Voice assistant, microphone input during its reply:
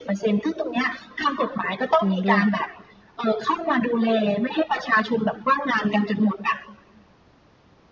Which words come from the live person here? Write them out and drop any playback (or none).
จริงด้วย